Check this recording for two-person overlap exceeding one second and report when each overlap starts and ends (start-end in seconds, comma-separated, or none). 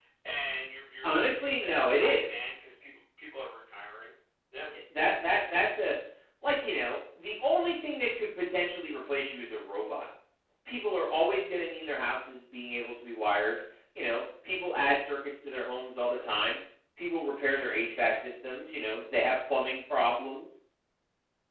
1.0-2.2